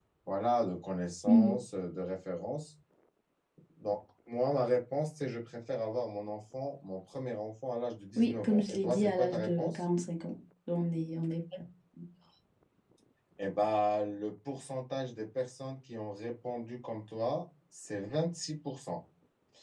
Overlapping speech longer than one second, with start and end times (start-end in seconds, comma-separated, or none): 8.2-9.8